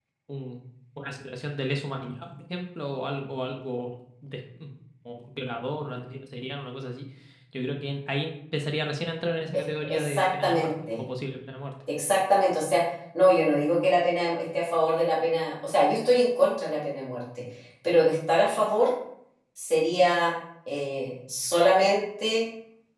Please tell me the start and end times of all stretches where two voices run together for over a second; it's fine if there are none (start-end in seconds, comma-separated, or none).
9.5-11.0